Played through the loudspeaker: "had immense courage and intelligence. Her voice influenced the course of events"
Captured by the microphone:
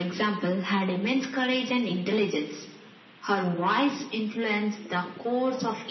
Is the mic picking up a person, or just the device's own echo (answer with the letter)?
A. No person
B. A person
A